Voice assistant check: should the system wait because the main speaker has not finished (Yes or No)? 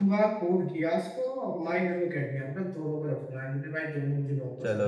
No